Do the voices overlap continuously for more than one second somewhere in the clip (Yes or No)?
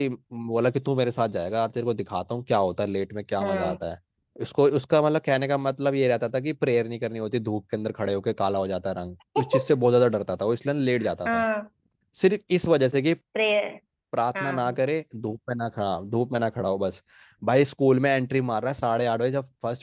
No